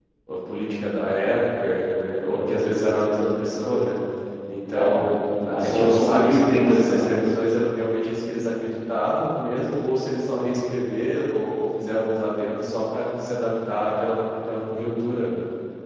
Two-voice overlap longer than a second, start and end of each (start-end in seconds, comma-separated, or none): 5.5-7.2